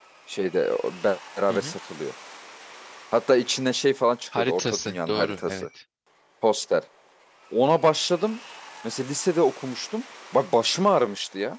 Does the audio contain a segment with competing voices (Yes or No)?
Yes